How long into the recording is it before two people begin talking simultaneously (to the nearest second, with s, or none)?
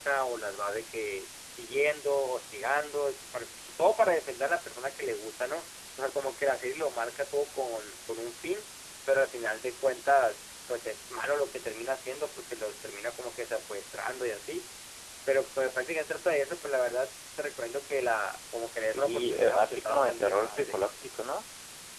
19 s